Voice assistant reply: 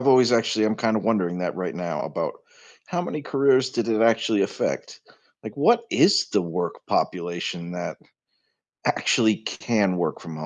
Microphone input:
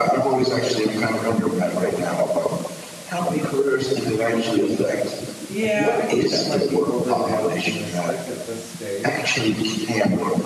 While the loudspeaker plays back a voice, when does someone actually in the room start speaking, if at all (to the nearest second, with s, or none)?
5 s